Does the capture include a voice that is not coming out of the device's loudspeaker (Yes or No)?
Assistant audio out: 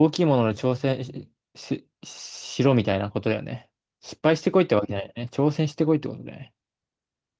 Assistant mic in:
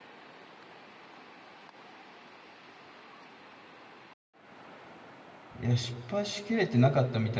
Yes